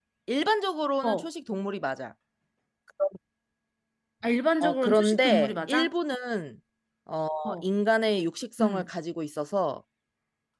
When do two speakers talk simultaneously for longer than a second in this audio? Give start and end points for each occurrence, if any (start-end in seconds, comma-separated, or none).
4.6-5.9